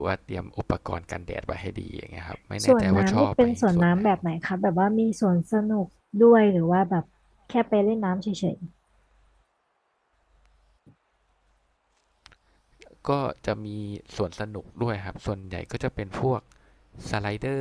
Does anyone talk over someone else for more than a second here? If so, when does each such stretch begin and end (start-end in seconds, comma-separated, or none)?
2.6-4.0